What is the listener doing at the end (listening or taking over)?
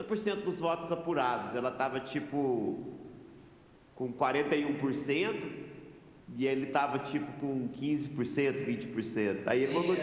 taking over